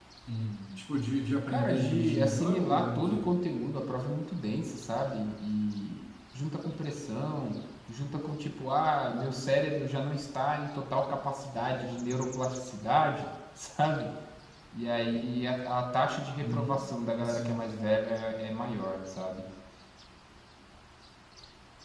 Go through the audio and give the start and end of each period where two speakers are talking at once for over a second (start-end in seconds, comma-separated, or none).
1.5-3.3